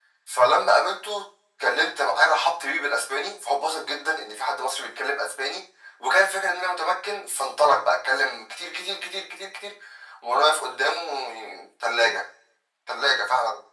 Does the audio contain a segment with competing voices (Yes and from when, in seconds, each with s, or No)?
No